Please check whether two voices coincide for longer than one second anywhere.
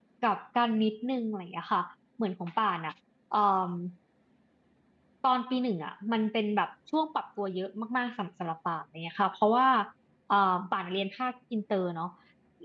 No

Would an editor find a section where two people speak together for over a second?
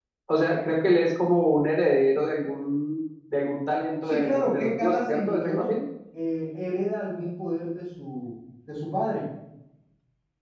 Yes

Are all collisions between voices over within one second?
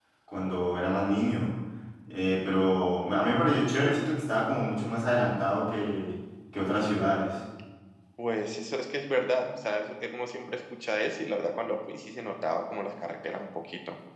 Yes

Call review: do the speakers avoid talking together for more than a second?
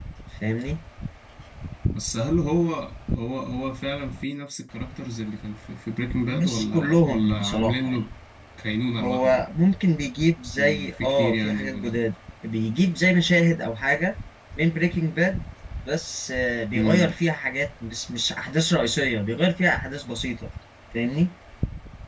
No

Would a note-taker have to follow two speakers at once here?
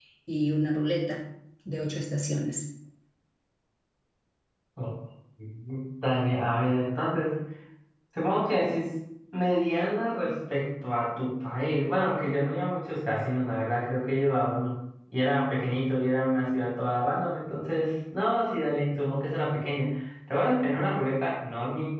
No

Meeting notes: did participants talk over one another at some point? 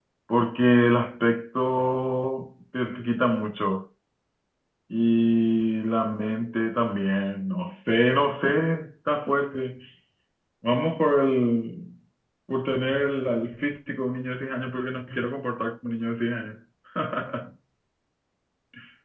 No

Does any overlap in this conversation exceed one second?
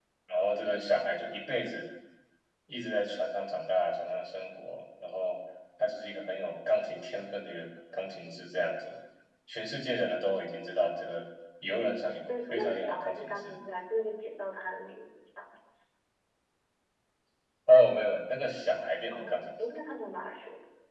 Yes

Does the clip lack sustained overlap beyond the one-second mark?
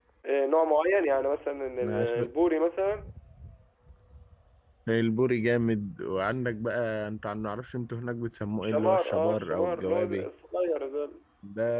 No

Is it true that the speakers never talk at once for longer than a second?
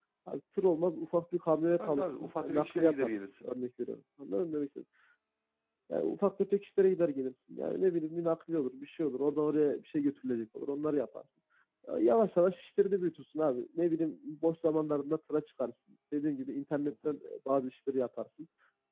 No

